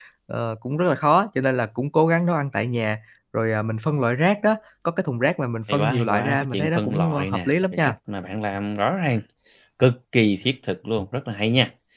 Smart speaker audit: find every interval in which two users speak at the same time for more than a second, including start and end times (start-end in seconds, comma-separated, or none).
5.7-7.9